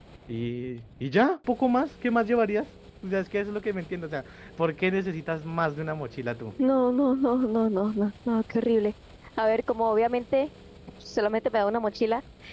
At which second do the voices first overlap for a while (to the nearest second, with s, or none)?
none